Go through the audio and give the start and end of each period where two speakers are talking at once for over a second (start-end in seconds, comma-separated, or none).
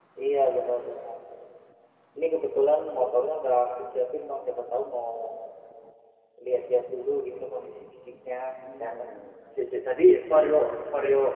none